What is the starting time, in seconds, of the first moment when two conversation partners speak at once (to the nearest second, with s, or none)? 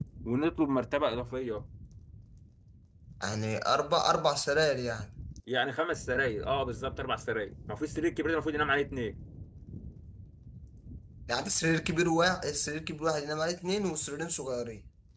none